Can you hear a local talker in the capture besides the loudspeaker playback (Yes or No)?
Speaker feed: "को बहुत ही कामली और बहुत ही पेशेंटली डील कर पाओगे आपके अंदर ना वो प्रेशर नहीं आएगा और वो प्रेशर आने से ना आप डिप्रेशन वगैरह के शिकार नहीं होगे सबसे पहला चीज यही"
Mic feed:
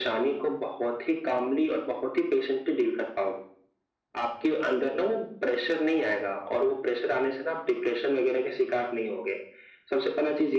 No